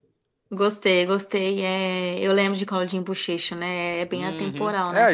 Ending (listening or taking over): taking over